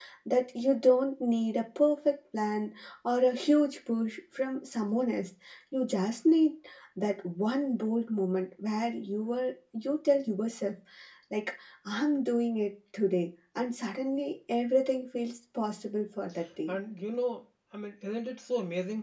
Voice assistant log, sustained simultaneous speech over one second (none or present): none